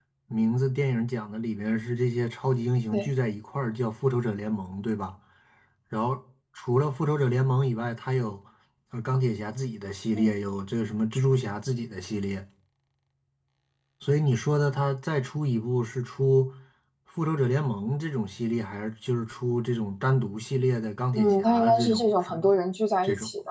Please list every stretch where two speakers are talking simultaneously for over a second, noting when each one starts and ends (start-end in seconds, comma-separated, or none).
21.1-22.4